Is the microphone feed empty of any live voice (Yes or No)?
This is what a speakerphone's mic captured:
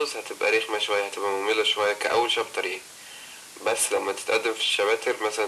Yes